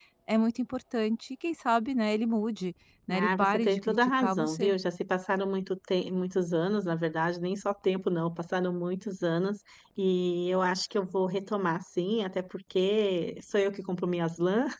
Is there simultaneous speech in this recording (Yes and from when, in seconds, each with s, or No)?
Yes, from 3.1 s